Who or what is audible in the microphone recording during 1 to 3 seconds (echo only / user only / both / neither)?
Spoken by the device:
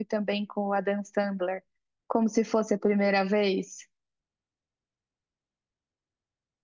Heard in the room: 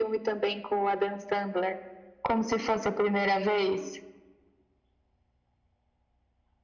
echo only